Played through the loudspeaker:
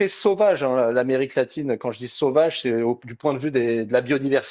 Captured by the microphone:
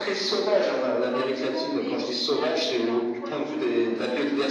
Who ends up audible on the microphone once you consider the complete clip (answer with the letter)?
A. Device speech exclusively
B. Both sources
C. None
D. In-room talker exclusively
B